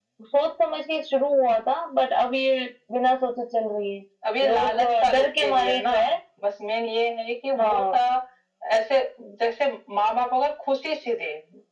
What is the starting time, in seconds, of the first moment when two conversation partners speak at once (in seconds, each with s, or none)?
4.5 s